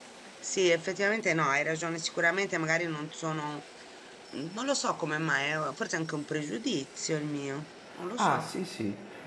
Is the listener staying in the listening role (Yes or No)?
No